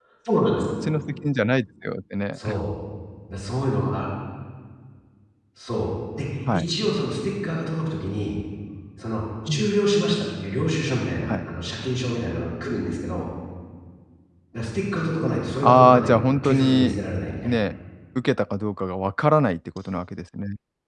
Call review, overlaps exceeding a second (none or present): present